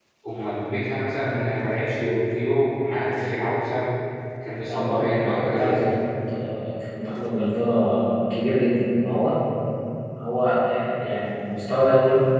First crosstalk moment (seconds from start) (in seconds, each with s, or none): 4.7 s